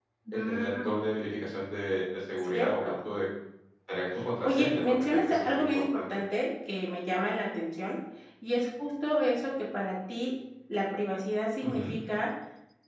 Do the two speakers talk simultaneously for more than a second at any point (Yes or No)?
Yes